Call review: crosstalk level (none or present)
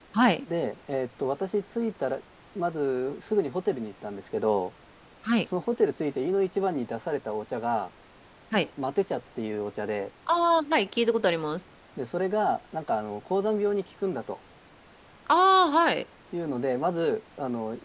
none